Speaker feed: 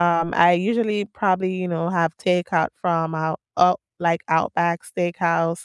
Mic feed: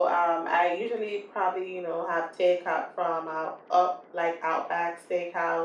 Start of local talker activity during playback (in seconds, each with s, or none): none